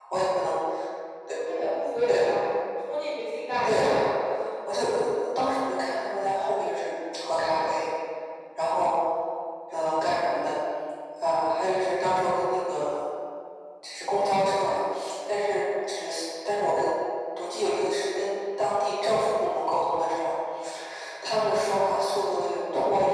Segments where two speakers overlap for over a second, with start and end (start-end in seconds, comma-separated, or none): none